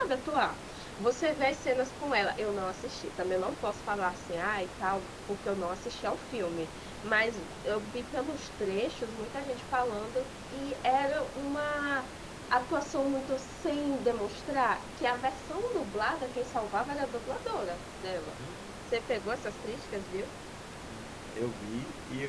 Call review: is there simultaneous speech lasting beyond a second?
No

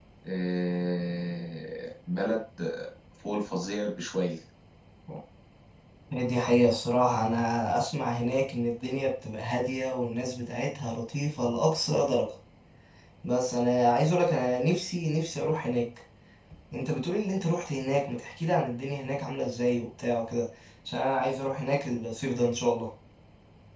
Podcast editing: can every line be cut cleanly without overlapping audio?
Yes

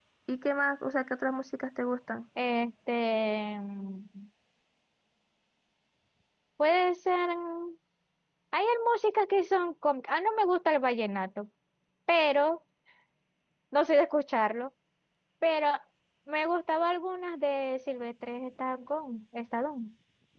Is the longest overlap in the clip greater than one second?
No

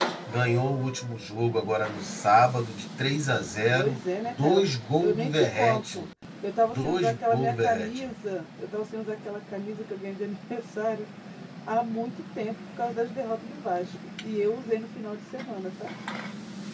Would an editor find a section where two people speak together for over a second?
Yes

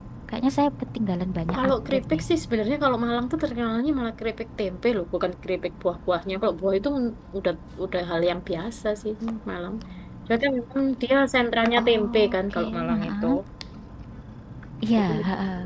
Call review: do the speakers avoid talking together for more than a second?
No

